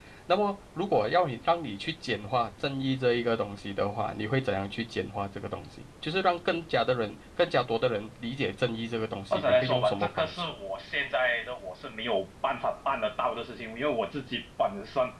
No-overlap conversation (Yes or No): No